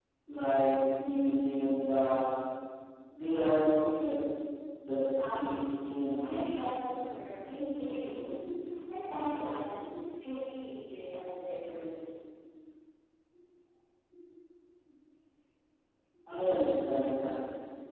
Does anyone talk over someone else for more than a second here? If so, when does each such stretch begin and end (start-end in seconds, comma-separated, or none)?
5.3-6.5